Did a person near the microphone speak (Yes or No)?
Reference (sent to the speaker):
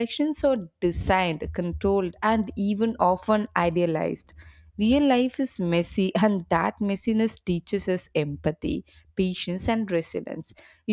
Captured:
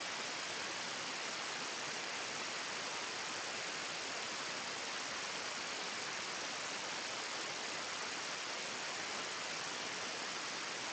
No